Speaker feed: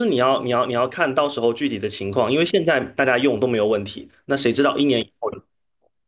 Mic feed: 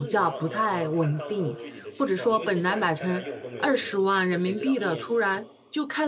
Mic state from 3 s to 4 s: both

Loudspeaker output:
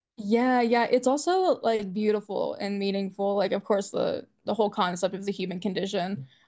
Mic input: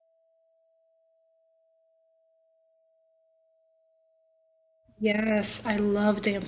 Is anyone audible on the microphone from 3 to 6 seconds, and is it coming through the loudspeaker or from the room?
user only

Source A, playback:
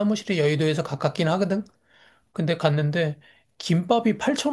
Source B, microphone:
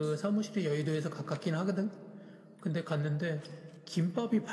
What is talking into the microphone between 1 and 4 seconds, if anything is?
echo only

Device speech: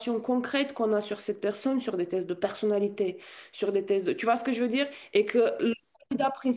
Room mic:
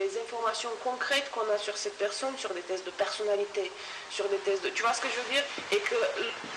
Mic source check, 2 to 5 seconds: echo only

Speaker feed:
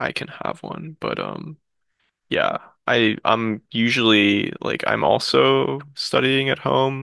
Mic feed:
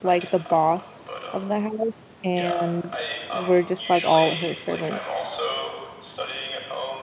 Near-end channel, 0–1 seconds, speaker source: both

